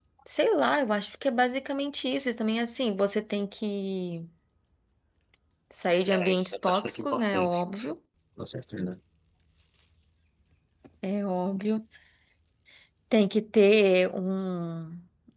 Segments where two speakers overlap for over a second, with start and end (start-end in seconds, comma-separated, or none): 6.2-7.6